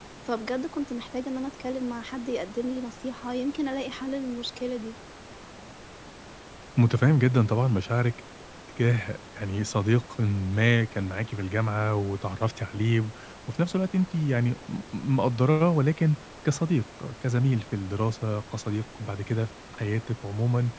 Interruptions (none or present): none